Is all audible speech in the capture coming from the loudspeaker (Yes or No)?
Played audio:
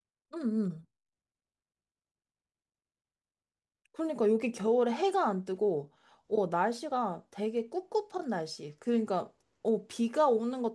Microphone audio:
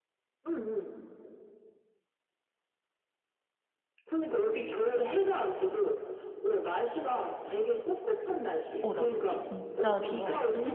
No